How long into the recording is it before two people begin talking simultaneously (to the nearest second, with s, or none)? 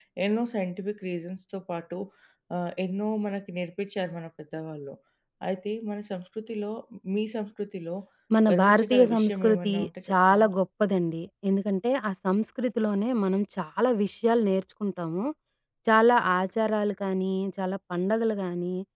9 s